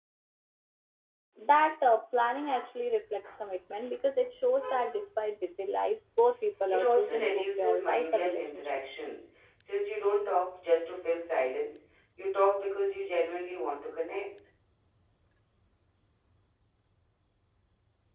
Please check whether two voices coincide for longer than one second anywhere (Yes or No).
Yes